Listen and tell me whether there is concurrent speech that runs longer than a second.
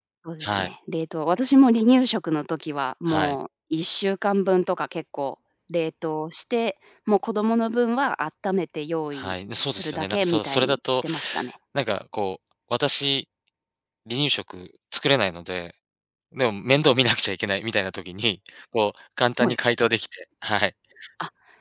Yes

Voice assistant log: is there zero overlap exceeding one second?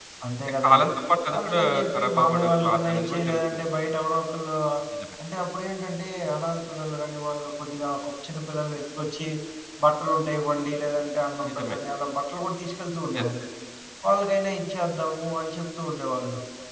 No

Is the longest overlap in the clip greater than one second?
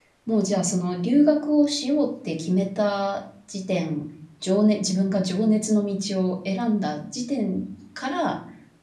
No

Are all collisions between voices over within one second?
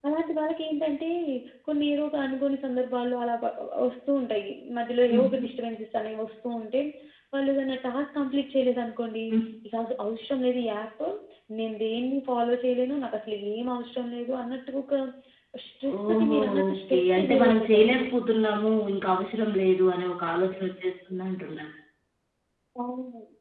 No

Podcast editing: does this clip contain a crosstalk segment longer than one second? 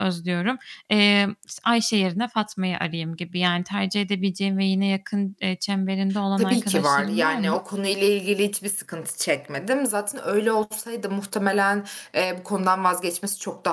Yes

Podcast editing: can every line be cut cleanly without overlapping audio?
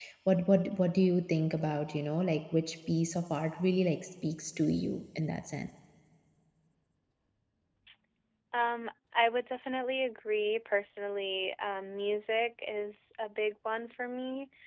Yes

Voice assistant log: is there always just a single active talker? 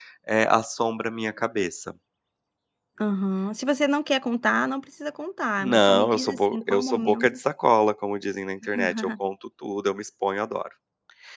No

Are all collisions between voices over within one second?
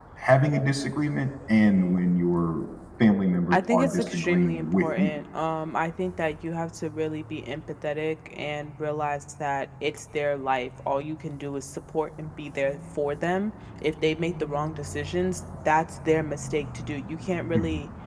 No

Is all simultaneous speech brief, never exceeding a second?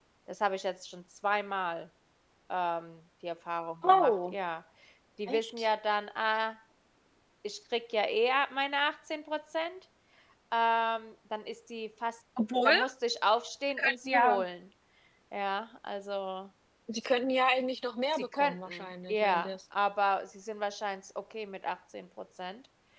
No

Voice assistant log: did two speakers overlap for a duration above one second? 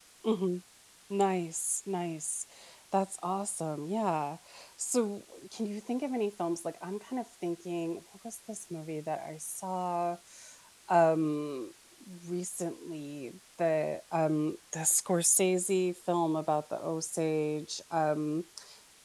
No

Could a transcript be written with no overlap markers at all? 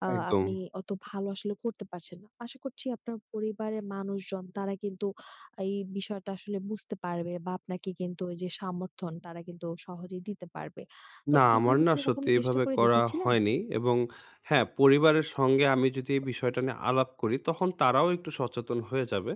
No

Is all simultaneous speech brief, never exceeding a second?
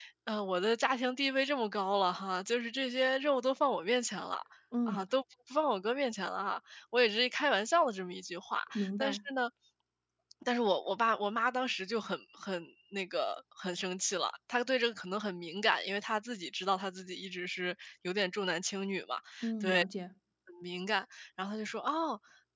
Yes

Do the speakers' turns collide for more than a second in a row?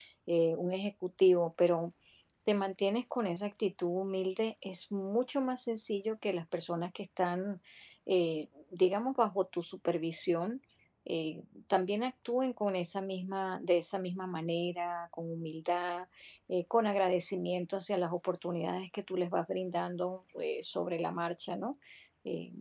No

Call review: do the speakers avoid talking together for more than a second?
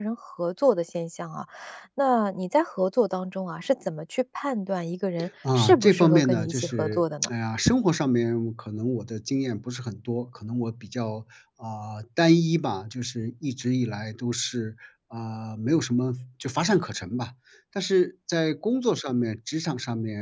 No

